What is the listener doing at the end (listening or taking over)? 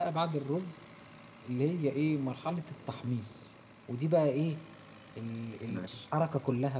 listening